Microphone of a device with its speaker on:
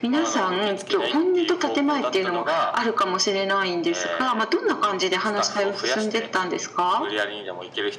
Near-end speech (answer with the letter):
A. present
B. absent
B